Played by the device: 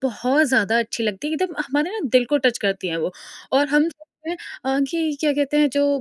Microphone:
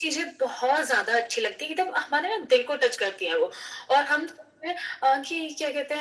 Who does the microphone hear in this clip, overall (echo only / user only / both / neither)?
echo only